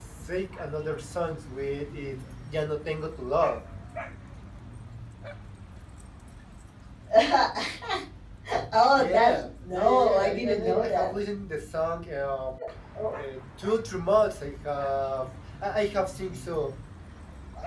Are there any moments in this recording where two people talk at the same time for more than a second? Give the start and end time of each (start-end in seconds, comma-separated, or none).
8.9-11.2